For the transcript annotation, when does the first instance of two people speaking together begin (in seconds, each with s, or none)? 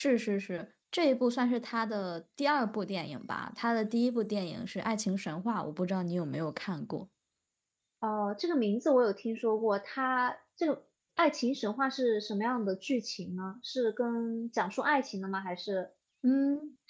none